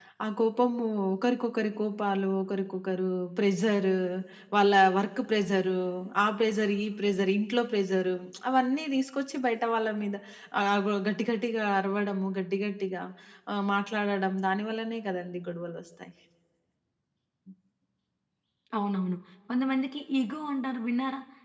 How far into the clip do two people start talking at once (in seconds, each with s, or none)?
none